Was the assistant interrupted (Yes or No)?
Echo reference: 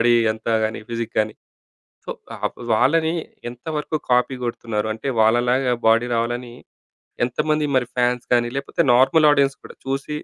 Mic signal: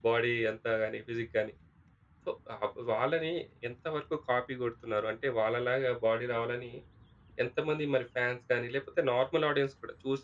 No